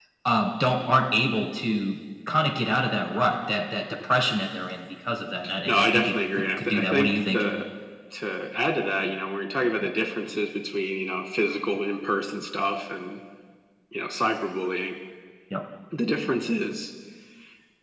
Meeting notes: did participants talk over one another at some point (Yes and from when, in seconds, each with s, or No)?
Yes, from 5.7 s